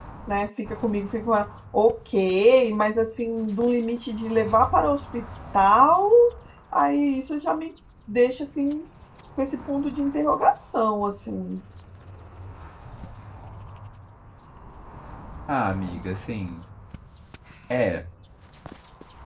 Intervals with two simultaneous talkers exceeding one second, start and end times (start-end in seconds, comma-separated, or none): none